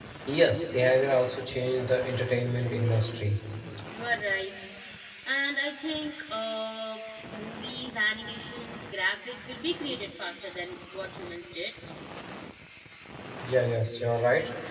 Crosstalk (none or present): none